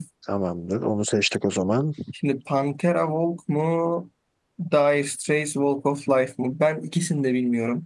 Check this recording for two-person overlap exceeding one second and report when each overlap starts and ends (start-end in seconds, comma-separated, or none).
none